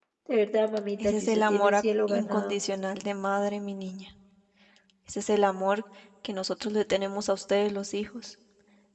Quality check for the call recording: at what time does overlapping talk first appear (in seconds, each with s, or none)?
1.0 s